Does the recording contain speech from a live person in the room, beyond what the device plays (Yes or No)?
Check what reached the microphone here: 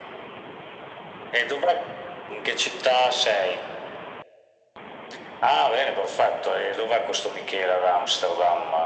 No